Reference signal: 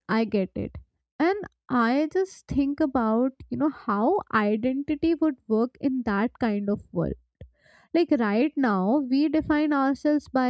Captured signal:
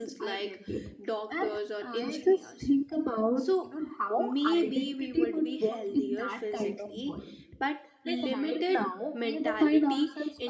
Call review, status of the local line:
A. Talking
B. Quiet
A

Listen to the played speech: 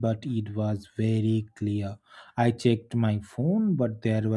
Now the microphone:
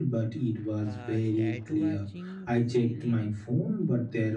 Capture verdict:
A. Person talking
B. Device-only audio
A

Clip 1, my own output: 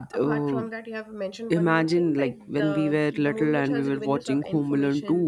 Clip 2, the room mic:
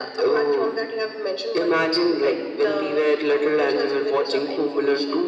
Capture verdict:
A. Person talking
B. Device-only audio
B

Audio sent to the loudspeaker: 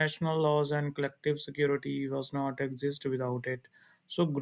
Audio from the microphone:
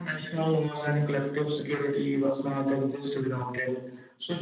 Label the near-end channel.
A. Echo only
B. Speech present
A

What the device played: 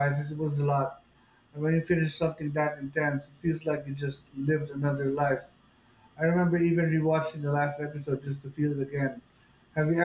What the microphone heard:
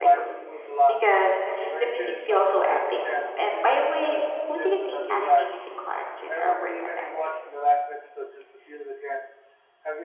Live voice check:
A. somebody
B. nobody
A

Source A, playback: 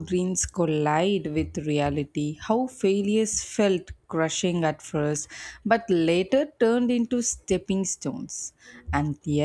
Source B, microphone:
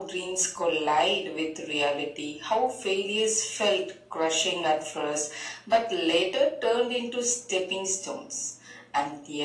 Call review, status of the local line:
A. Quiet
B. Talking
A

